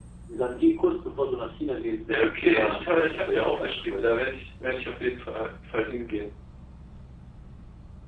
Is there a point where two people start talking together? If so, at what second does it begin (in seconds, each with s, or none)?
2.0 s